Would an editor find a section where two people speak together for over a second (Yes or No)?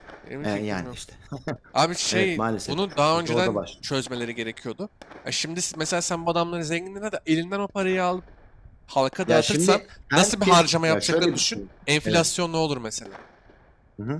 Yes